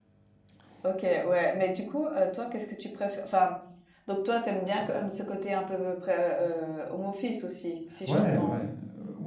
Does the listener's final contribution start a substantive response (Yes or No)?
Yes